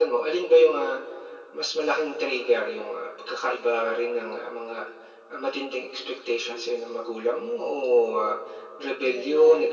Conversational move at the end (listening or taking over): listening